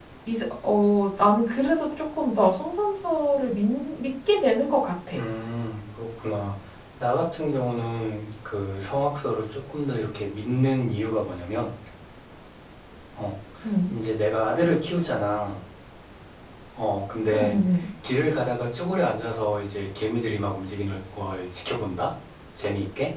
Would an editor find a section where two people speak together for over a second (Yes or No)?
No